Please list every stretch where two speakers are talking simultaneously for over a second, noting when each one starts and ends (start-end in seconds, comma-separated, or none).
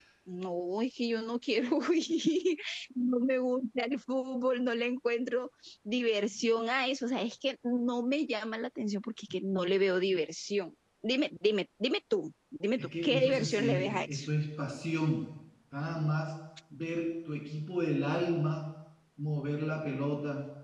13.0-14.2